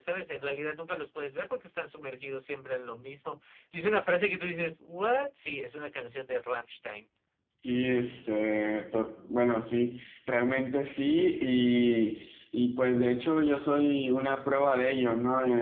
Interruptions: none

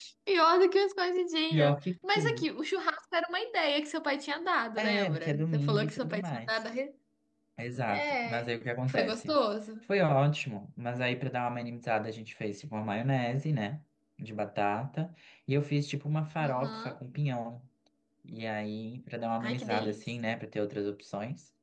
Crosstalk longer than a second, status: present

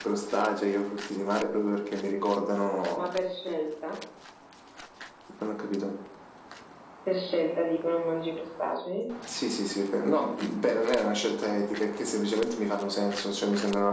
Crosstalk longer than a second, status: none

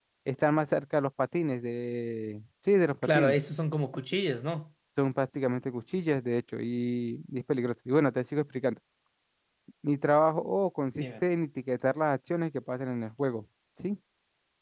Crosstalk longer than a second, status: none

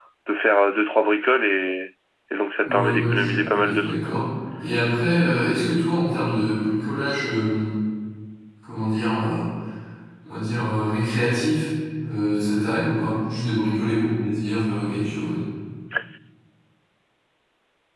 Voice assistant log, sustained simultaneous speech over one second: present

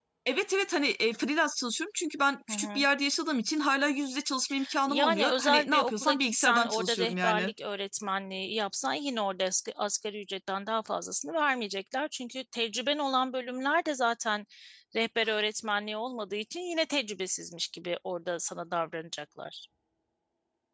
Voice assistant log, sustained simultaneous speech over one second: present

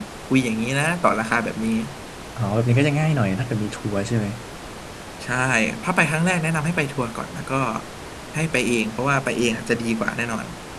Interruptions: none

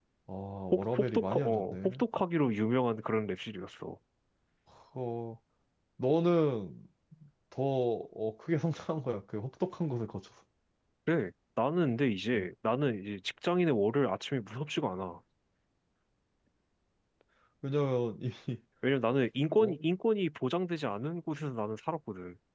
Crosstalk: present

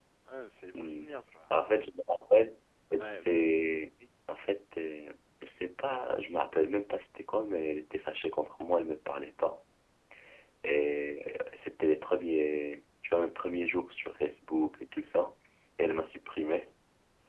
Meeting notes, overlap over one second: none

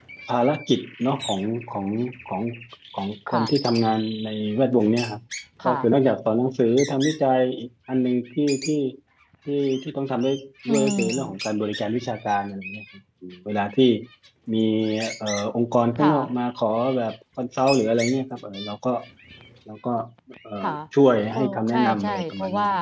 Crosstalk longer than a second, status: present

